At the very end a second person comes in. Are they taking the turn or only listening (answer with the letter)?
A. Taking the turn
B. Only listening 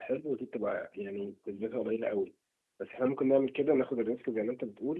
B